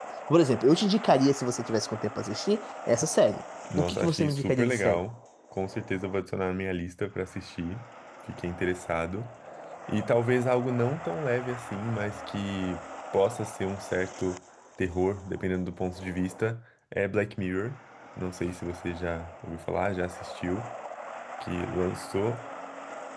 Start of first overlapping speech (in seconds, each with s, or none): 3.6 s